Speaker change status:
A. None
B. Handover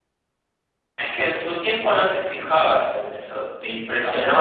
B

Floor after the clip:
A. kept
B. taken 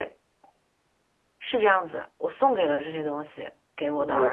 B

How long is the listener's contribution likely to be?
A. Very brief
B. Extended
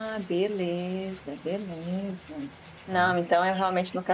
A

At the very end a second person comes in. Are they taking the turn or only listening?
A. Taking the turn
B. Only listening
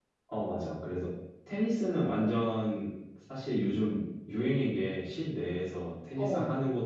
B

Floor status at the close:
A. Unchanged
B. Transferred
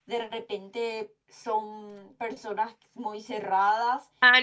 B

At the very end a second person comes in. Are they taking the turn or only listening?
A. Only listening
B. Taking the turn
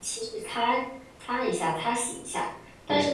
A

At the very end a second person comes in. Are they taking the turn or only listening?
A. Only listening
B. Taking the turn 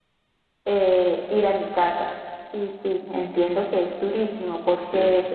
A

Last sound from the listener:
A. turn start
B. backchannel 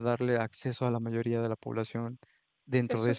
A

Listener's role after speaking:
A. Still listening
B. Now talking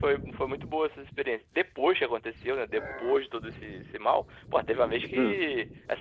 A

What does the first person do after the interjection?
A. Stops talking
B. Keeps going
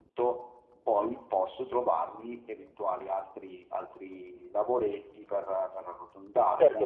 A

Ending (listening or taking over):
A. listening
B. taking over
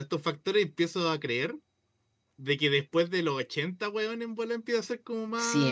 B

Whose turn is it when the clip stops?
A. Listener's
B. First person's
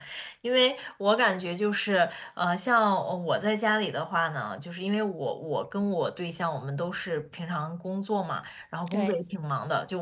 B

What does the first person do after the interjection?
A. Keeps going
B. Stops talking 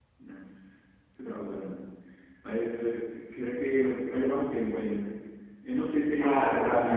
B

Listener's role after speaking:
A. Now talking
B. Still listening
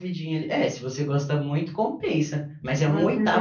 A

